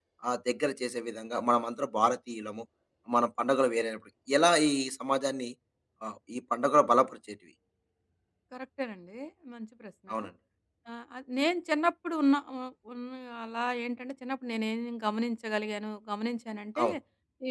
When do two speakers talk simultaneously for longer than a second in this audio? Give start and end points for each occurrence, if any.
none

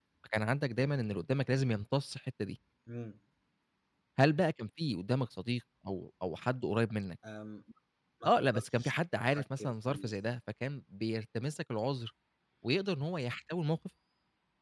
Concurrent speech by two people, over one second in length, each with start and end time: 8.3-10.1

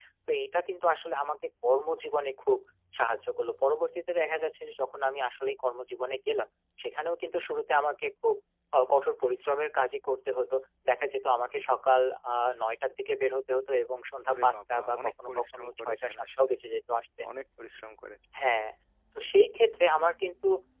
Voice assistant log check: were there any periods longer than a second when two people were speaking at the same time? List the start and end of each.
14.3-16.5

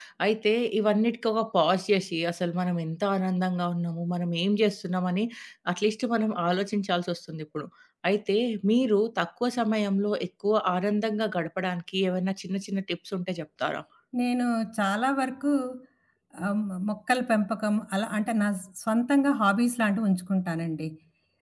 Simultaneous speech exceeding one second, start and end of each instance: none

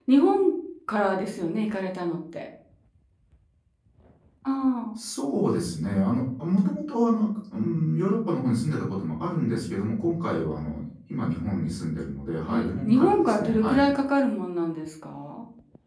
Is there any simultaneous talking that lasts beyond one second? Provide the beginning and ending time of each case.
12.5-13.9

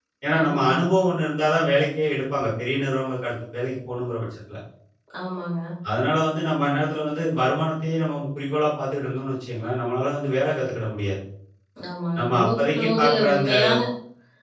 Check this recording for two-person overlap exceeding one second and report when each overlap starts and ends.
12.2-13.5

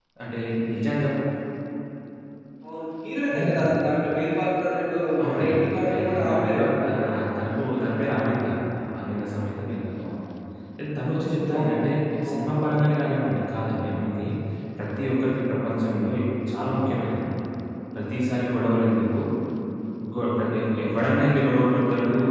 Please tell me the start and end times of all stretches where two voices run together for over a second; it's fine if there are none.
5.2-7.2

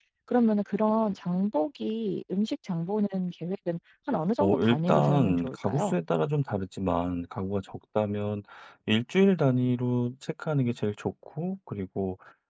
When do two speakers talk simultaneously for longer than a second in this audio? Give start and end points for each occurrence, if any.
4.4-6.0

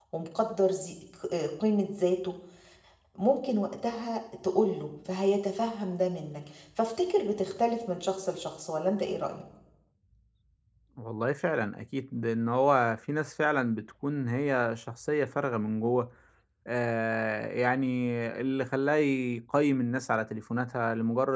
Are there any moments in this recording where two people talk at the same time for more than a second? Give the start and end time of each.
none

